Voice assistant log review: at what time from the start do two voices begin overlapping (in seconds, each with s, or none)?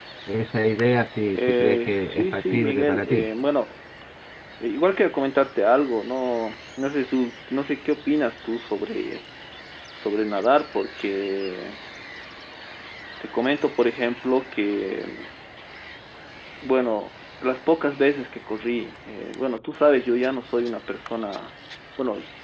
1.3 s